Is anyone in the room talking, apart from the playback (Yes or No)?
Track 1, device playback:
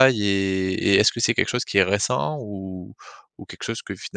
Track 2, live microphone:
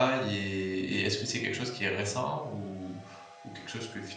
No